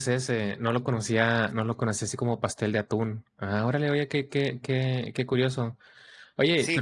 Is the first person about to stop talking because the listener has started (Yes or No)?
Yes